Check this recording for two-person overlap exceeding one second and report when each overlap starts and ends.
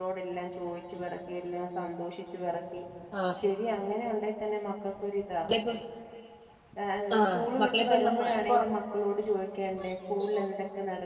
7.2-8.6

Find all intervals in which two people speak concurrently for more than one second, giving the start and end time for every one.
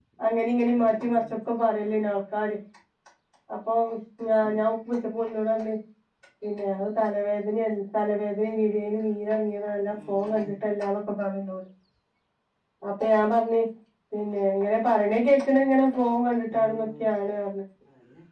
none

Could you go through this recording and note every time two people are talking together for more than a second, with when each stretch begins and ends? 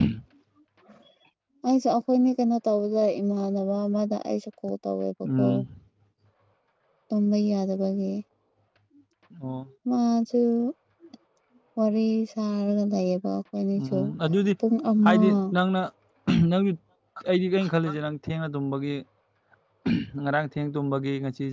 none

